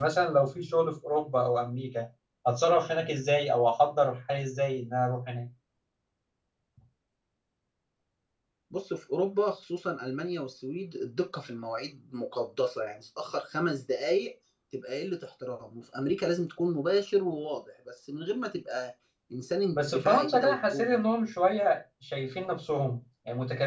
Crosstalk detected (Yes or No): Yes